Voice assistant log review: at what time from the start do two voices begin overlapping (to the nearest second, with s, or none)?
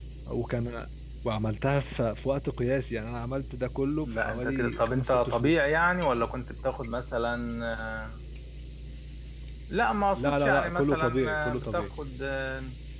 4 s